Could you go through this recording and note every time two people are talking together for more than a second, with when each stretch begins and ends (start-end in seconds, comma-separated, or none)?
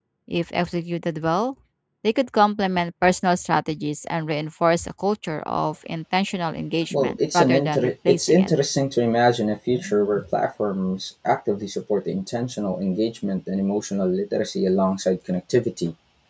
6.9-8.5